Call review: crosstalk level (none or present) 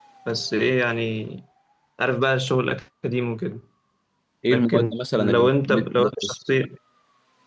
present